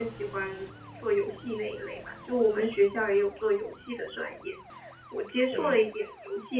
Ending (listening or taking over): listening